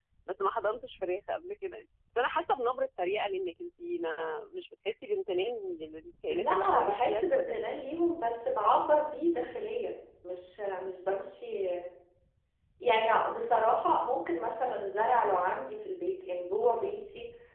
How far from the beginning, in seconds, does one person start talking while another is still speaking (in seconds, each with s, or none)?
6.3 s